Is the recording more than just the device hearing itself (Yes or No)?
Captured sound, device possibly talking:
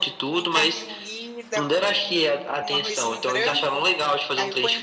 Yes